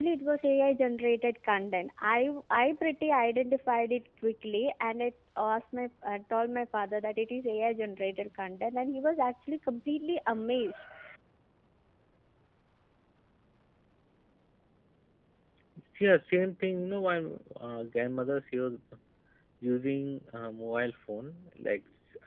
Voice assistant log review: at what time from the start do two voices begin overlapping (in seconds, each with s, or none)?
none